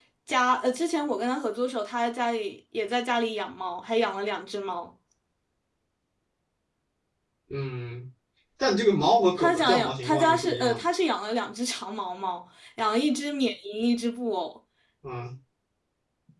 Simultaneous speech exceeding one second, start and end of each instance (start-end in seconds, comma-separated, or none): 9.4-10.8